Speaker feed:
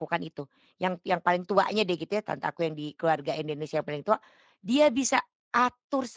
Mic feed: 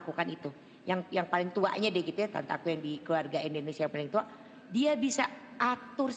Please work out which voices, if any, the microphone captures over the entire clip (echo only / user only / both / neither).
echo only